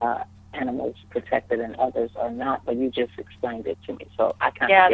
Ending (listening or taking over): taking over